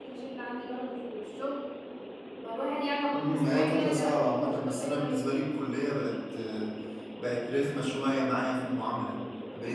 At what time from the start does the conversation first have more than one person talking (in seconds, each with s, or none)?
3.1 s